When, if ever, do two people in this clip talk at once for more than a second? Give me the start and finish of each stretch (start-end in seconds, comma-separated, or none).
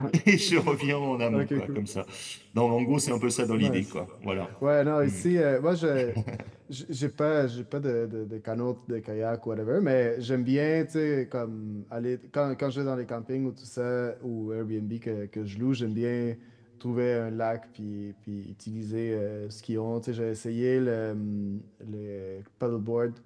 none